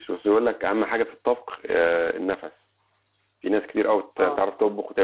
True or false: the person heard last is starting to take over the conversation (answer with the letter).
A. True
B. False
B